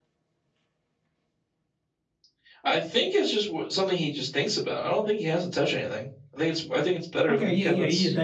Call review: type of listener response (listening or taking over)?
taking over